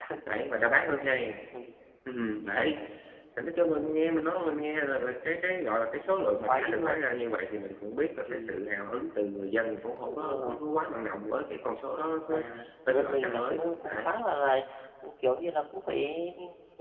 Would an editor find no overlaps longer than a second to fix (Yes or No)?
No